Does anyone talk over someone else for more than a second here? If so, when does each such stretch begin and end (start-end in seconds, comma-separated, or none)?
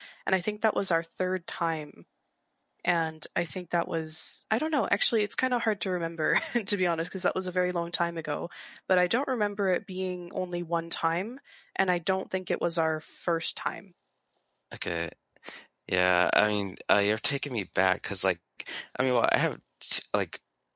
none